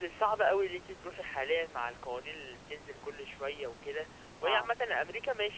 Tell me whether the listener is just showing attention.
Yes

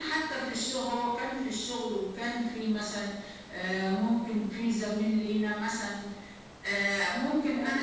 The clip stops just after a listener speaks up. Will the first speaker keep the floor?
Yes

